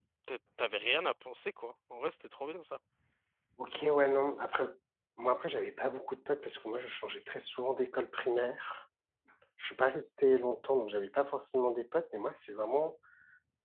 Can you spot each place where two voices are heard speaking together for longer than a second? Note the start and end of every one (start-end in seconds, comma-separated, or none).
none